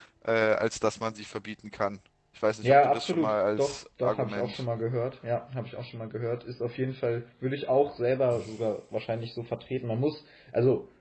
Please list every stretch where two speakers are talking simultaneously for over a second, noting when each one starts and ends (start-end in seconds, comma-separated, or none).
2.6-4.6